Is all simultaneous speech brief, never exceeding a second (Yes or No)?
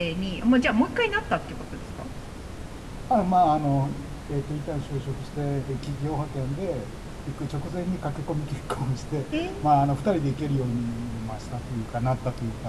Yes